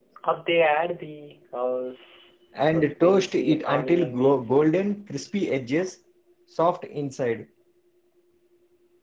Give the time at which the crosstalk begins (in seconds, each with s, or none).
2.7 s